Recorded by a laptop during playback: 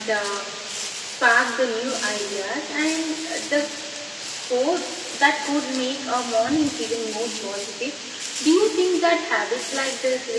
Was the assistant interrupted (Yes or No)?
No